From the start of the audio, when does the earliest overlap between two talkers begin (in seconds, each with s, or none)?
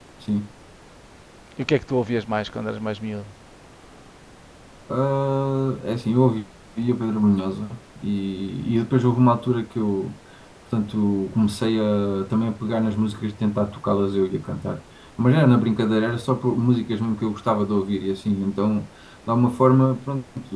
none